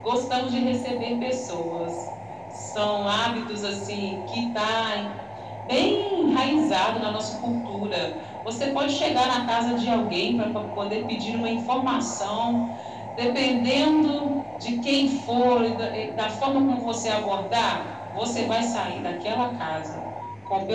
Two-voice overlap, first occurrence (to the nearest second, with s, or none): none